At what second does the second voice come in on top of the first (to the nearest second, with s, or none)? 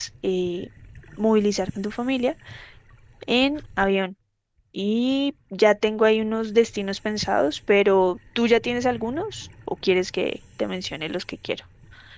none